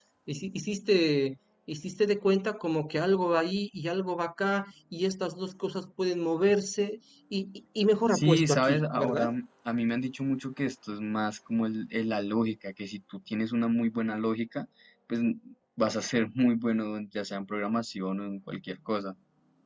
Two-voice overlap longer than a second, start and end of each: 8.1-9.3

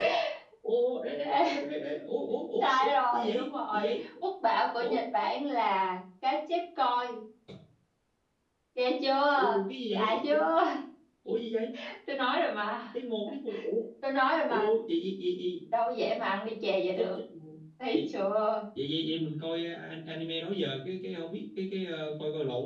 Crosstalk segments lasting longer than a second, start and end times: 2.6-3.9

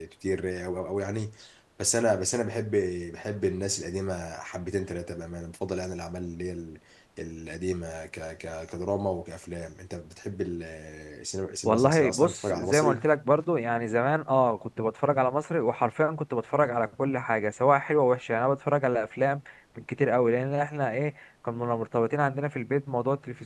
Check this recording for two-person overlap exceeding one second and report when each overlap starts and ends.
11.7-13.1

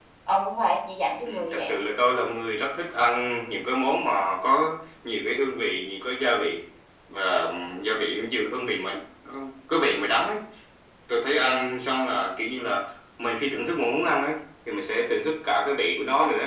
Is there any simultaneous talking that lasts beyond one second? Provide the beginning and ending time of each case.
none

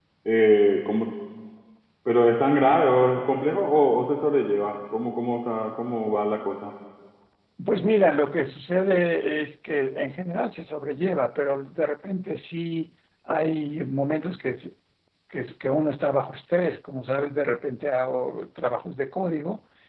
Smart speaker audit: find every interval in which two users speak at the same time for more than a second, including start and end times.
none

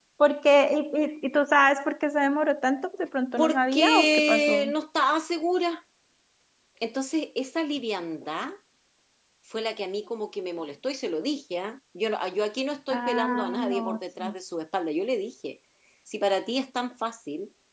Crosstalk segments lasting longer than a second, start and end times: 3.4-4.7, 12.9-14.3

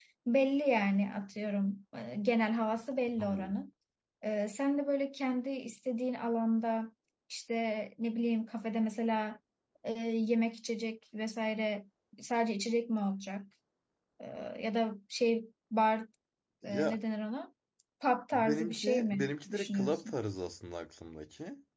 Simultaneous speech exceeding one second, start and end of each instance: 18.3-20.1

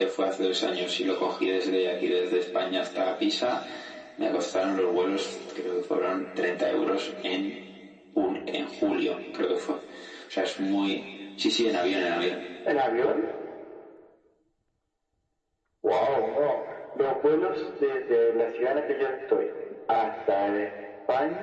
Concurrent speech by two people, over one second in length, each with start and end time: none

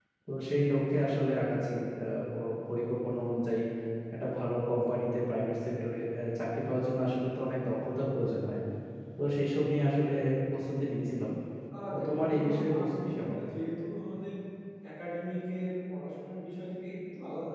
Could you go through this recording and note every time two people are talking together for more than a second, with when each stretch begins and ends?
11.9-13.4

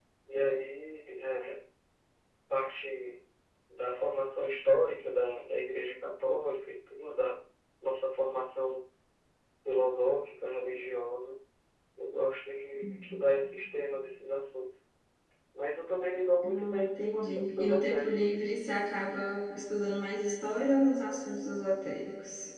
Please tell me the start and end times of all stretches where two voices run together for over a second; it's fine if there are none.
16.5-18.4

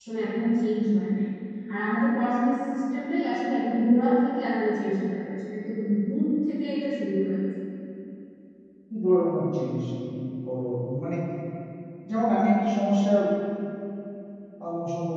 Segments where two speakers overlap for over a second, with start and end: none

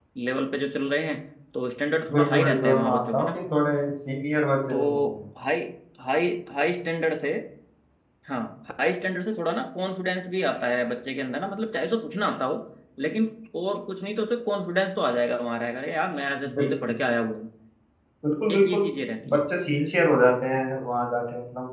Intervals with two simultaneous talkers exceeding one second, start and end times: 2.1-3.3

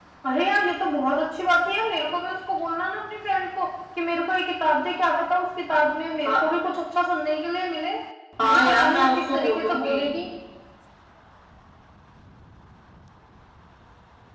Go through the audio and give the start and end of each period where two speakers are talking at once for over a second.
8.4-10.0

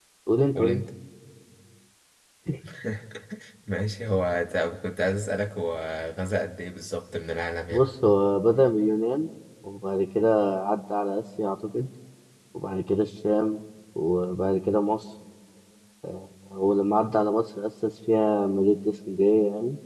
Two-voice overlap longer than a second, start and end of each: none

